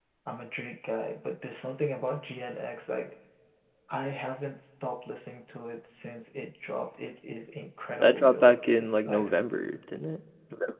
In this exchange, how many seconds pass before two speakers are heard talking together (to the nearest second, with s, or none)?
8 s